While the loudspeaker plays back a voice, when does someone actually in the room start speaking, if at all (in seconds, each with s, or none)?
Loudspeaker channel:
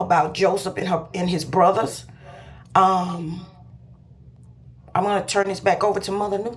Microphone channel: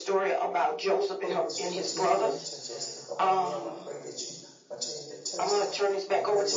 1.2 s